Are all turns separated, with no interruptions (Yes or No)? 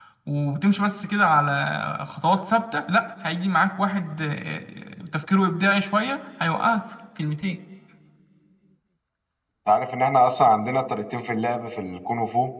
Yes